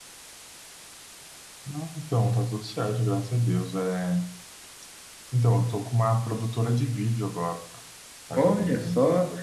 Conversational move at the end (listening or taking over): taking over